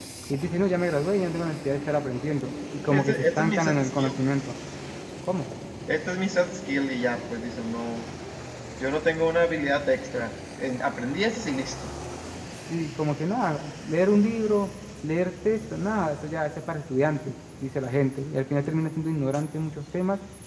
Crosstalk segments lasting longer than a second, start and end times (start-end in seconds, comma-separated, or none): 2.9-4.1